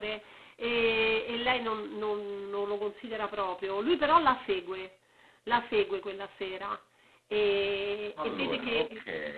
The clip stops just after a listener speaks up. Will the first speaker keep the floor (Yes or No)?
Yes